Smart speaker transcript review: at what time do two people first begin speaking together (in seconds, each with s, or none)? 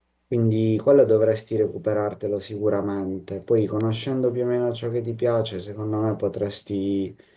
none